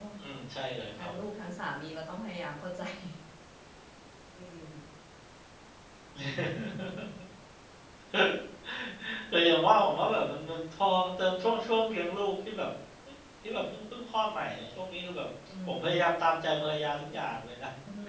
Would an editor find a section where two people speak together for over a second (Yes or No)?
No